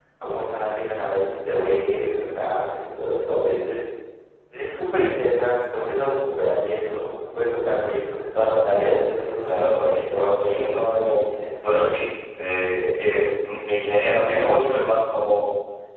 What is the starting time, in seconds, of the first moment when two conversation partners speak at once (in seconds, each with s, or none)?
9.5 s